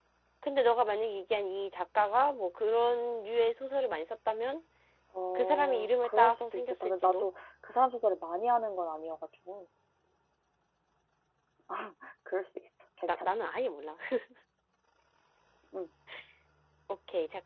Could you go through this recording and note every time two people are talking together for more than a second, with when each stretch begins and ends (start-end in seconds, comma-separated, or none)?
5.4-7.2